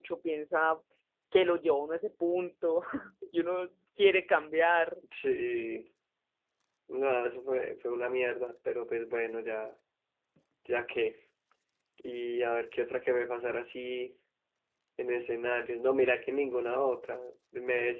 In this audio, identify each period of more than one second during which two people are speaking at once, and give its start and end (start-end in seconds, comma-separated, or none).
none